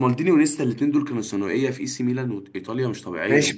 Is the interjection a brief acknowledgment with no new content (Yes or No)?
No